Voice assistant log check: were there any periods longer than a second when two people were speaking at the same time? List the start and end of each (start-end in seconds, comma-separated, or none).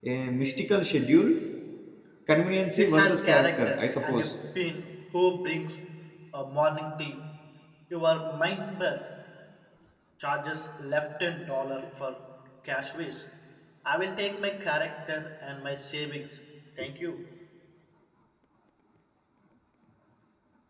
2.8-4.3